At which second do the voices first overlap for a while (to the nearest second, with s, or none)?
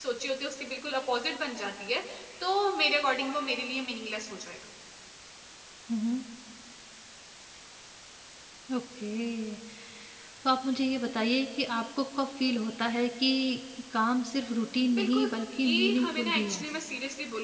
15 s